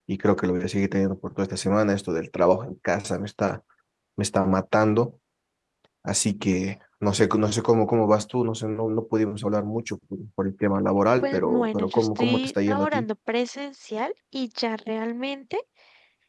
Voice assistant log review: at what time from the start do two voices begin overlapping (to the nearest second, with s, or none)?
11 s